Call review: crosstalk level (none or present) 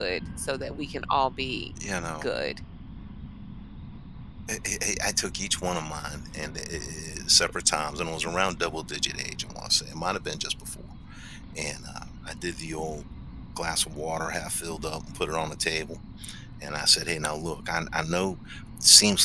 none